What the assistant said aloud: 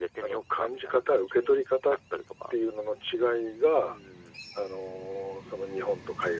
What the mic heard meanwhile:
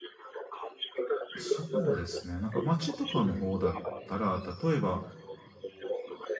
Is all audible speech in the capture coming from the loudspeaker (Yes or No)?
No